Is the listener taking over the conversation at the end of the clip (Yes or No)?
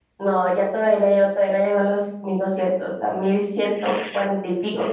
Yes